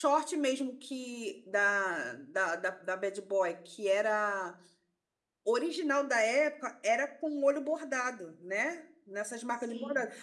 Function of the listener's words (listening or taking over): listening